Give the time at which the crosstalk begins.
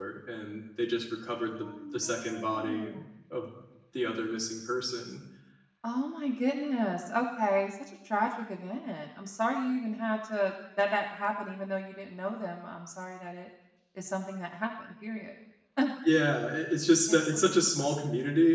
1.6 s

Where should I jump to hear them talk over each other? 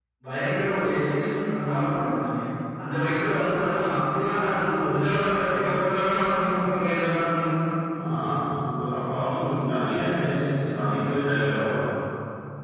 none

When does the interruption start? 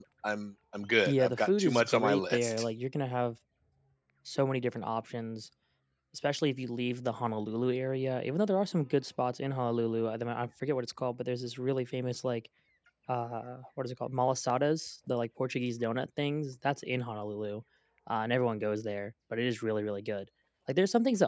1.1 s

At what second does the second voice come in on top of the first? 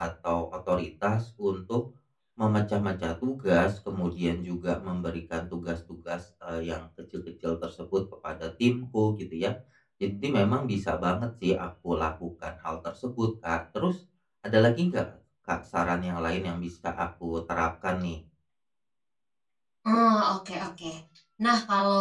none

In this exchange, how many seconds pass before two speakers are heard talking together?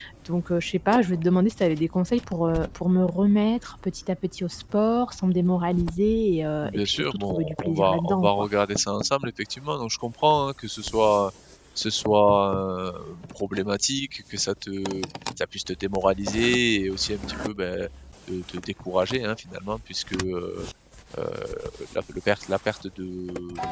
6.6 s

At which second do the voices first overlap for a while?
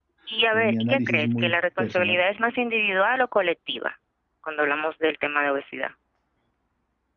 0.5 s

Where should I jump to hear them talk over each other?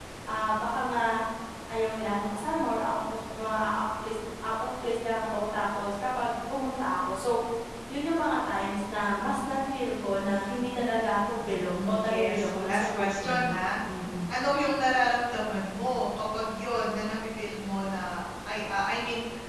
11.5 s

